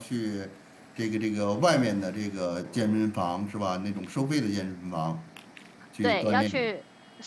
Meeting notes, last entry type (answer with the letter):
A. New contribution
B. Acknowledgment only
A